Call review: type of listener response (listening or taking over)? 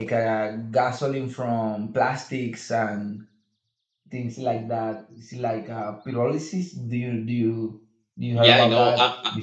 taking over